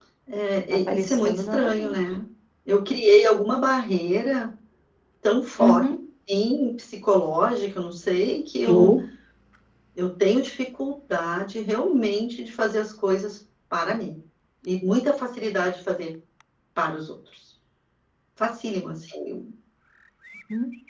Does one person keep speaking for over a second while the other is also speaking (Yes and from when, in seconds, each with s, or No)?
Yes, from 0.7 s